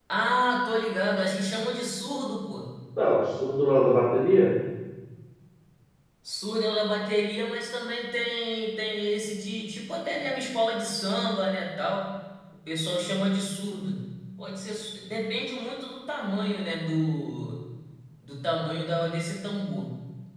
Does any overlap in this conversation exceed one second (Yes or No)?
No